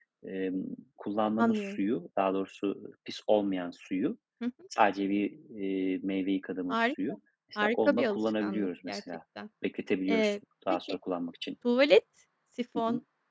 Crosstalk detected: Yes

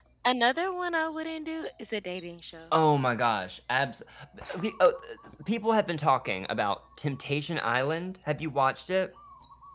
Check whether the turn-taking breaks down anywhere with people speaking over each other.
No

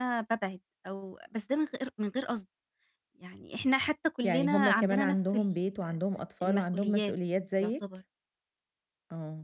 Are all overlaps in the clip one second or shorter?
No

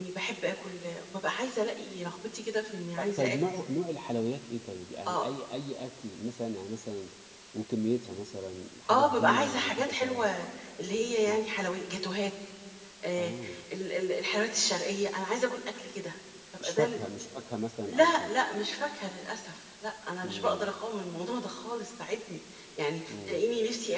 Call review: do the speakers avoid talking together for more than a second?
No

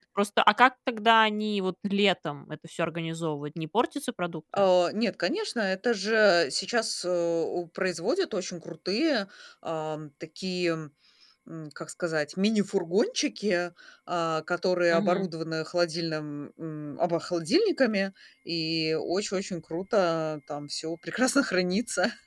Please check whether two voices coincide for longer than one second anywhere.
No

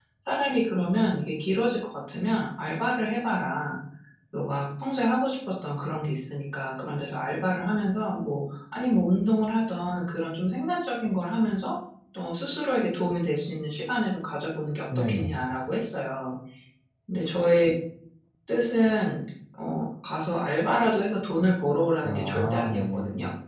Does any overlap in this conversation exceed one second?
Yes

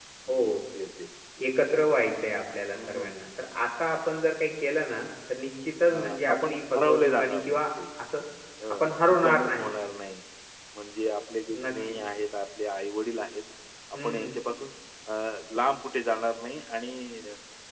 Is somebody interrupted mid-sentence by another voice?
Yes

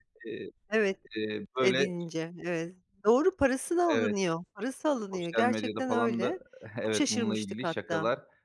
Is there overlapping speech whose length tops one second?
Yes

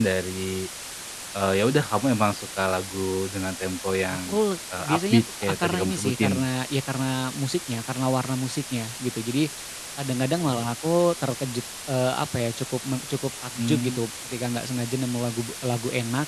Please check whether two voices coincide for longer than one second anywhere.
Yes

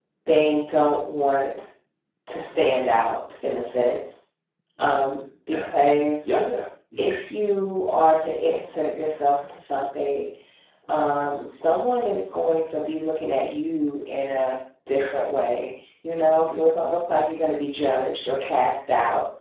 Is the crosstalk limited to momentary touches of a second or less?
Yes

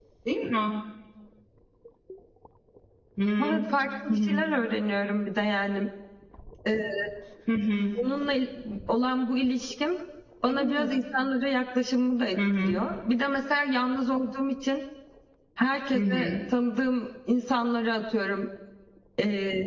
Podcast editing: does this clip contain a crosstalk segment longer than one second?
No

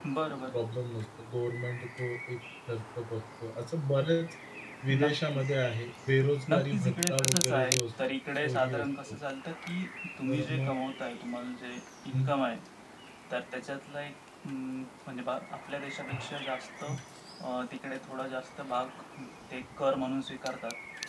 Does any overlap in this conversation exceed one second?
Yes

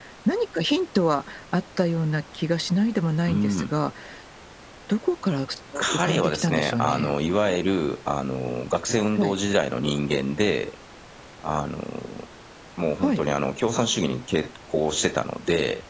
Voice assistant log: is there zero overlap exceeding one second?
No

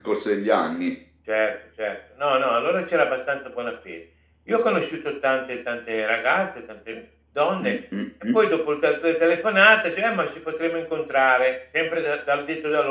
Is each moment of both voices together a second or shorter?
Yes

